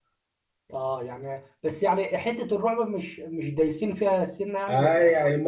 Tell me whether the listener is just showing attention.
No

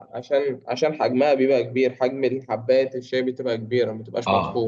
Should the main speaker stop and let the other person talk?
Yes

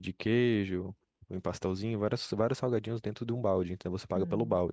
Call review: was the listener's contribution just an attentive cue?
No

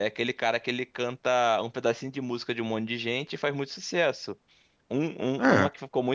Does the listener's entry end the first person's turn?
No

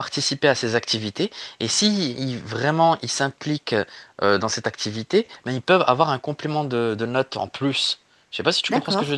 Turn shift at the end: Yes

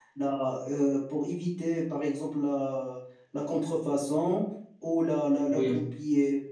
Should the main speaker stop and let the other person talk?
No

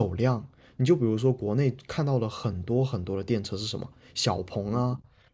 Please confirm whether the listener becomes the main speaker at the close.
No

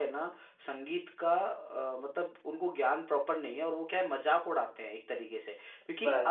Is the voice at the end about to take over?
No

